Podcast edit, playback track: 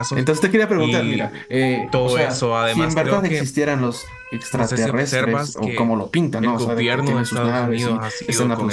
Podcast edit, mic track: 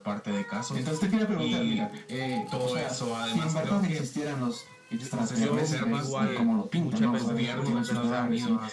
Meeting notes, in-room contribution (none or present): present